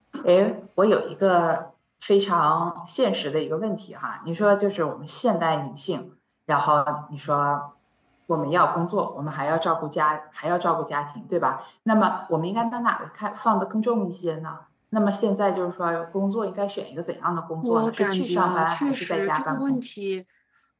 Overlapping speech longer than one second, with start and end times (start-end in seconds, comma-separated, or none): 17.6-19.8